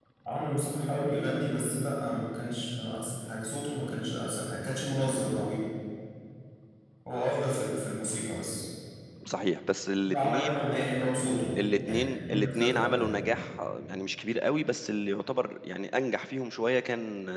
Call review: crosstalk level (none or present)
present